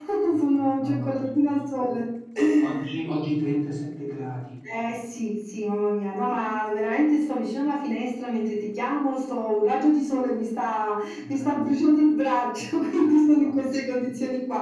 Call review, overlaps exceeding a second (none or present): present